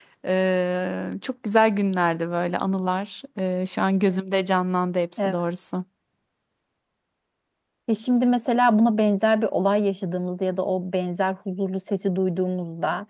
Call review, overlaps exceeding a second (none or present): none